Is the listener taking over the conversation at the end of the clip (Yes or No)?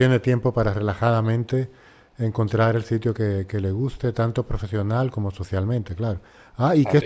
Yes